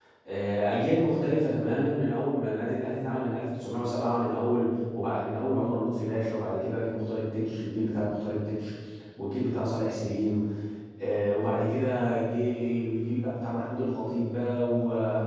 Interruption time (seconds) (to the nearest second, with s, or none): none